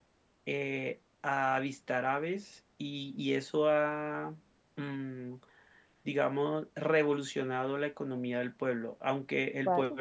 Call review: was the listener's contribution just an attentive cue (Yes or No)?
Yes